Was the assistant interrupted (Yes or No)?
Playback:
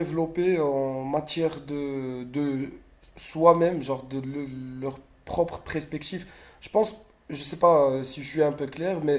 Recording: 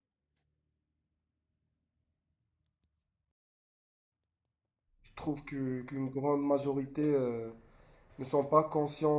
Yes